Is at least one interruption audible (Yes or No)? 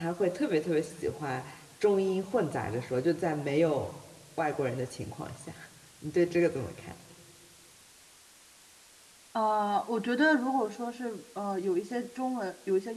No